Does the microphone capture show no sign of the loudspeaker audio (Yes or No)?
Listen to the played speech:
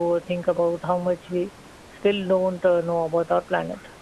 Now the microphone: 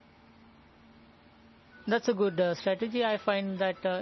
Yes